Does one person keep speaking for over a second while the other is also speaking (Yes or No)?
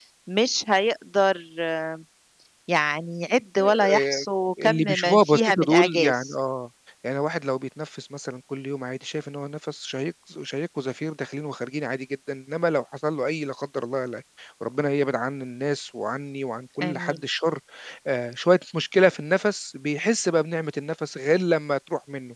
Yes